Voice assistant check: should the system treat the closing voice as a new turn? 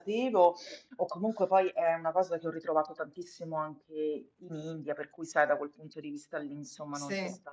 No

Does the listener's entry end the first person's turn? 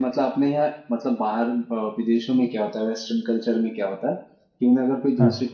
No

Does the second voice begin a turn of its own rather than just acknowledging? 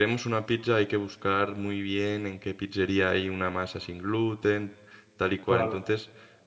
No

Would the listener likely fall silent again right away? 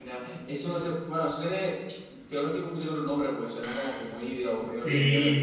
No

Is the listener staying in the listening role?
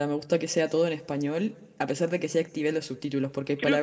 Yes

